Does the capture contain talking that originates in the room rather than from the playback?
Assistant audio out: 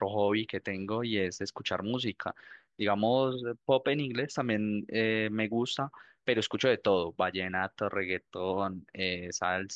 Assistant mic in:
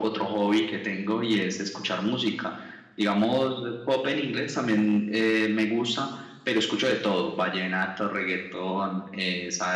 No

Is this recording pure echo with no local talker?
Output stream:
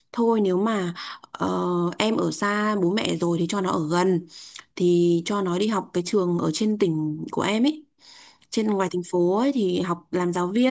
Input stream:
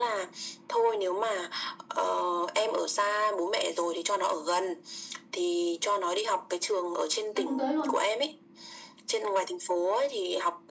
No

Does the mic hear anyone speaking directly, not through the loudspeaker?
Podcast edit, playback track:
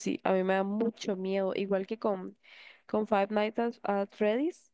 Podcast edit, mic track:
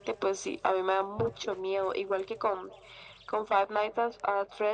No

